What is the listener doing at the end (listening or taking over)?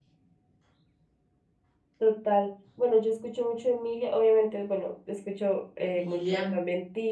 listening